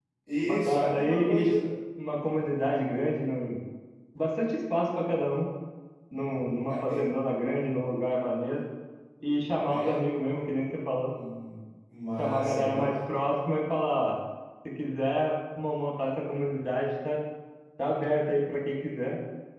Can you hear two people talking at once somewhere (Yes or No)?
Yes